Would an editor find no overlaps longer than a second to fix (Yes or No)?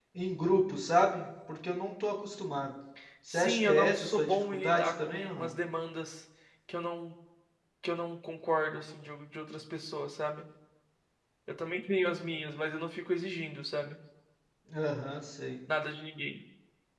No